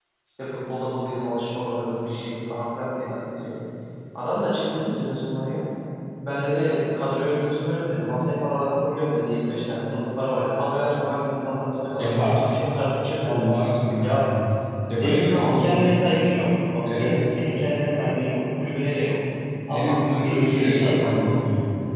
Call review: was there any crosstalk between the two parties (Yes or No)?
Yes